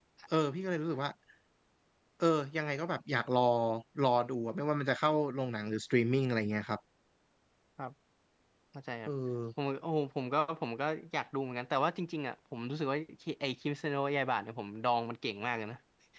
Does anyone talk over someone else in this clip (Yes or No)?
No